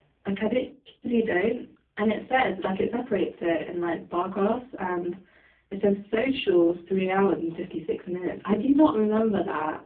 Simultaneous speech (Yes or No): No